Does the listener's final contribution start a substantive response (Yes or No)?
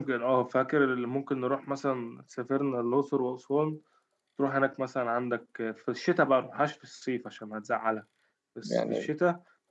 No